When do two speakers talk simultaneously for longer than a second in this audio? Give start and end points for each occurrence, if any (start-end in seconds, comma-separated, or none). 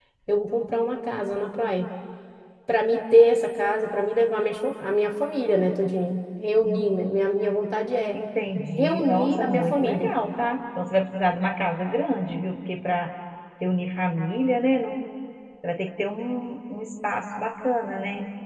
8.8-10.1